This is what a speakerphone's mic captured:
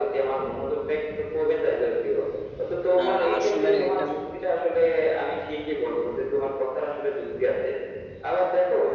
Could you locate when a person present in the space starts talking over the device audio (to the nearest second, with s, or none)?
3 s